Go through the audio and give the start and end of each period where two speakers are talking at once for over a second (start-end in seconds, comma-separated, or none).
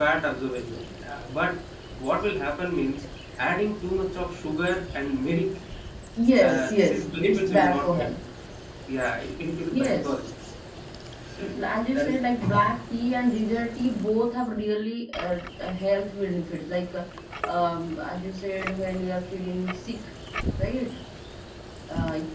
6.4-8.1